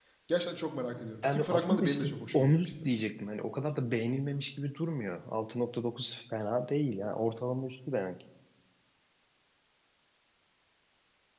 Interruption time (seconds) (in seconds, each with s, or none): 1.2 s